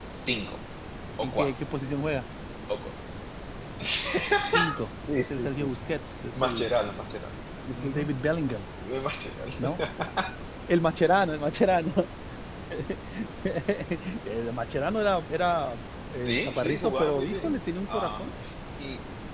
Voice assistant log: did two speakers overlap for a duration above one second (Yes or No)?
Yes